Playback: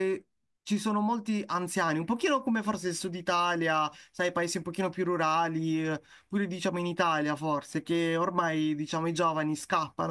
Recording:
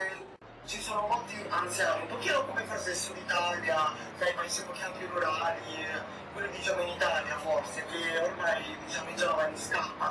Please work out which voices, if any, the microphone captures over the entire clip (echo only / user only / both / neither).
echo only